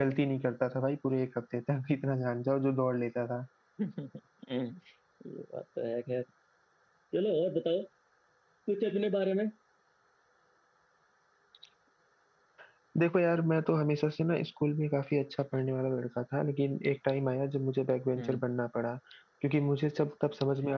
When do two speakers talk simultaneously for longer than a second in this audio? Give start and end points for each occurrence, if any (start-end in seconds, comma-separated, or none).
none